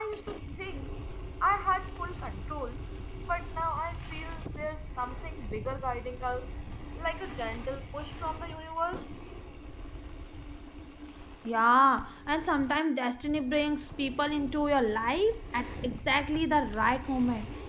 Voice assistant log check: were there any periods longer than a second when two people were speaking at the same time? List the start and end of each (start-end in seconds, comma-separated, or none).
none